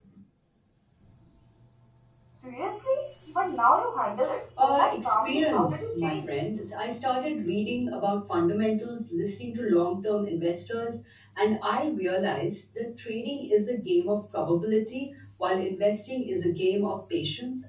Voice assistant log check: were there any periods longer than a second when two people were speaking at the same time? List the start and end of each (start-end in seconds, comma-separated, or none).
4.6-6.2